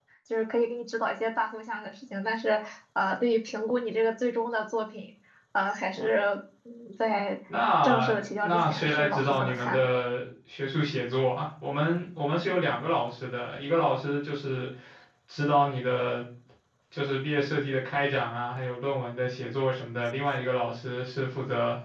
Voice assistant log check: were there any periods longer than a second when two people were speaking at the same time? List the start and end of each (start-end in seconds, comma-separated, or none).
7.8-9.8